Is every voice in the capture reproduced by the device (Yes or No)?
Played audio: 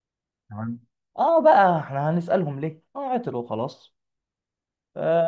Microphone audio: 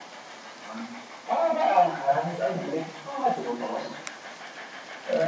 Yes